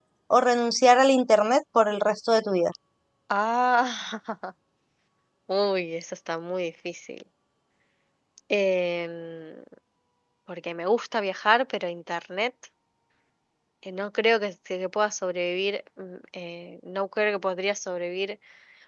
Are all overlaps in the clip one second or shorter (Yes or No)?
Yes